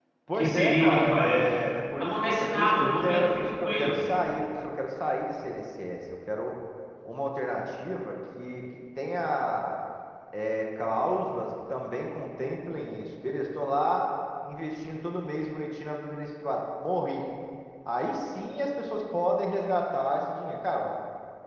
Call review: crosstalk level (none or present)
present